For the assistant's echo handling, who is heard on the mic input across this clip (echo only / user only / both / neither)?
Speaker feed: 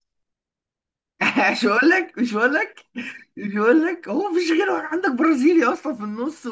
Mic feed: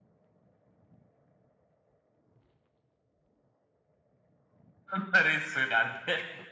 user only